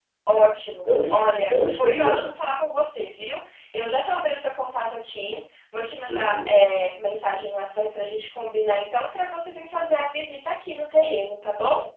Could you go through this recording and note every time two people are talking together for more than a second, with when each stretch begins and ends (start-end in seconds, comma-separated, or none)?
1.1-2.3